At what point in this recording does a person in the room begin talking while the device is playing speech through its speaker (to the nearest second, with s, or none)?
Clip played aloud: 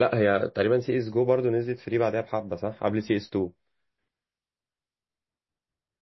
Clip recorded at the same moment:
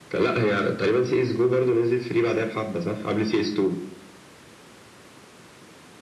none